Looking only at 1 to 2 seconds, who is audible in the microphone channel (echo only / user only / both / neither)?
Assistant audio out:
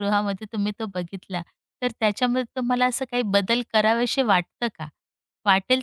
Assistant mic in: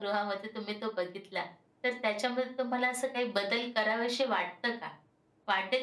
echo only